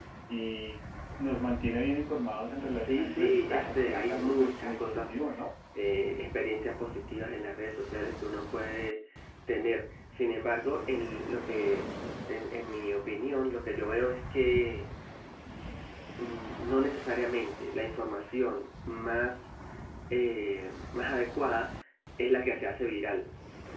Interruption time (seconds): 2.8 s

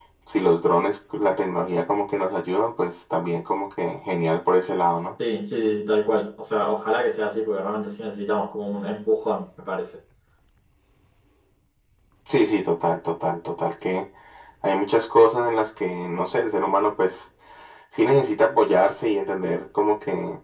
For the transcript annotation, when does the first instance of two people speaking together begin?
none

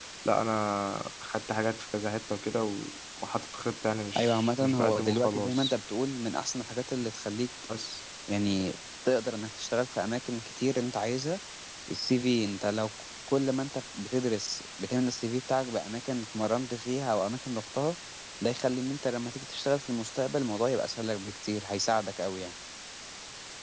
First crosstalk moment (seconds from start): 4.2 s

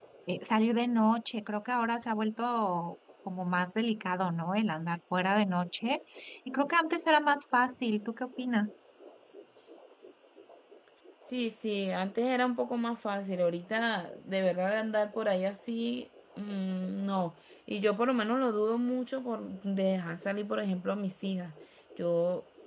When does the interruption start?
none

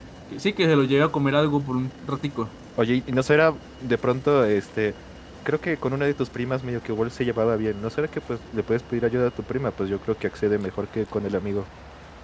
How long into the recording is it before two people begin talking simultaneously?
none

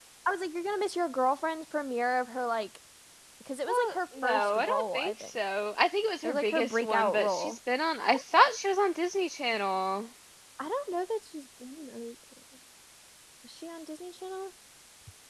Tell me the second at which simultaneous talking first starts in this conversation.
3.7 s

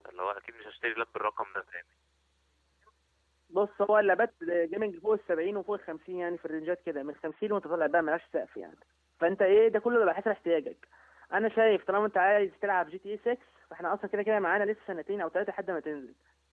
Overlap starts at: none

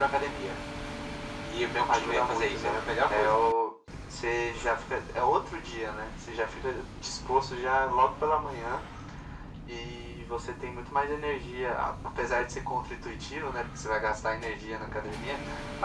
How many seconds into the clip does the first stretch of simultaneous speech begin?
1.9 s

